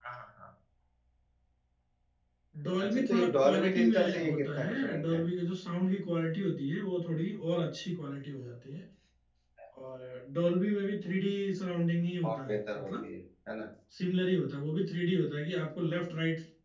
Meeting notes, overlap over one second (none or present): present